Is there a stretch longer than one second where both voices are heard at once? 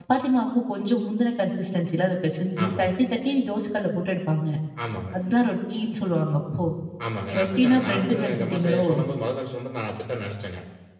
Yes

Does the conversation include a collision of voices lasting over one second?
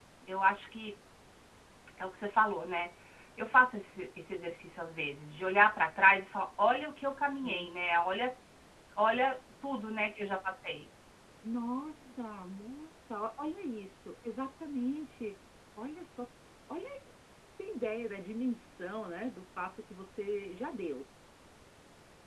No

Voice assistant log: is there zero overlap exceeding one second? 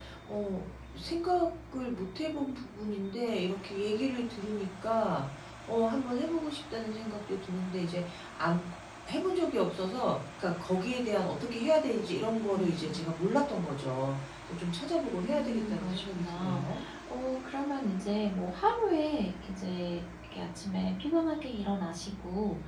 No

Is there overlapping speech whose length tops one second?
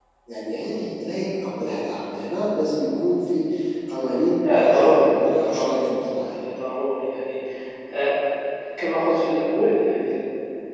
Yes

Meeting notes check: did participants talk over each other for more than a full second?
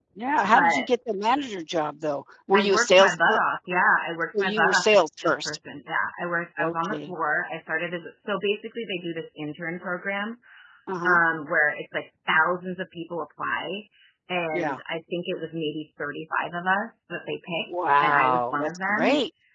Yes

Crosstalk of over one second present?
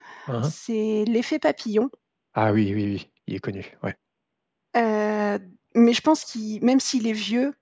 No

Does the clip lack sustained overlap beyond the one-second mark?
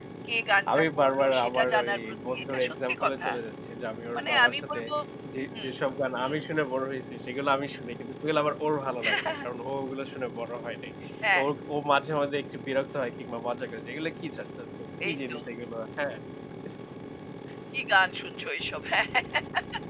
No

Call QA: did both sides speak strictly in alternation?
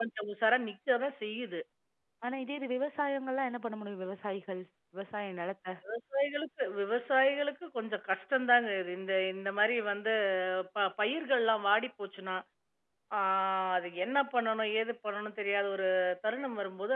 Yes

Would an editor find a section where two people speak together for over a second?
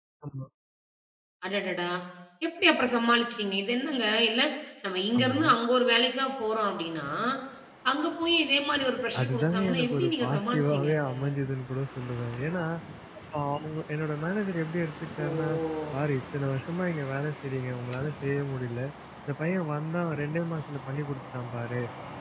Yes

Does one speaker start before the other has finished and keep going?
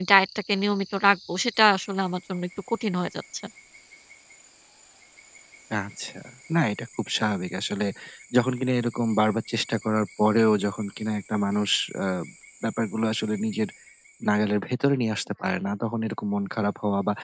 No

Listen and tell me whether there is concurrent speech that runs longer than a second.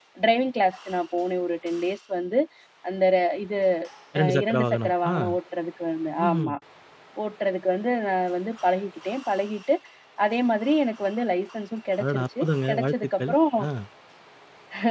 Yes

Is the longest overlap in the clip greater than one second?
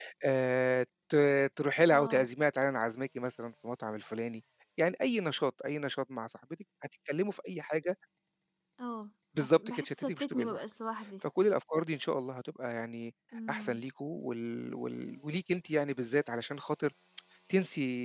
Yes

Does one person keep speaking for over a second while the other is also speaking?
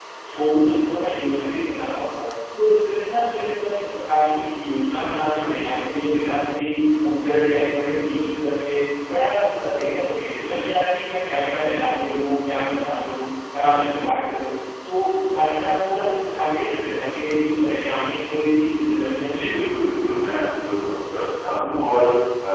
No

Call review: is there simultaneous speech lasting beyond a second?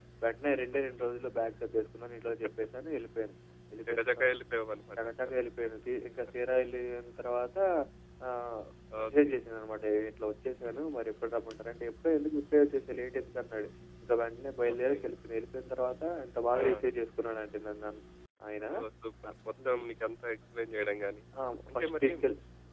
No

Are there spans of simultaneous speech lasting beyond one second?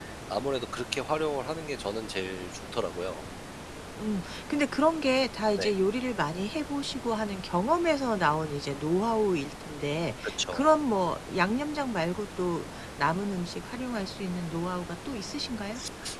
No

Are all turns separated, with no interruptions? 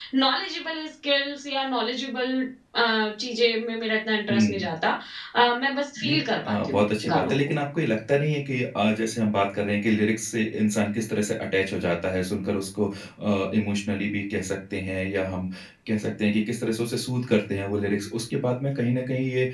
No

